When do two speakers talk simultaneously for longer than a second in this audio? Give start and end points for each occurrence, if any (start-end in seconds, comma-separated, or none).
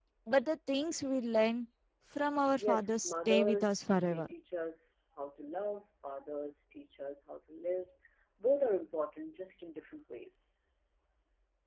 2.6-4.3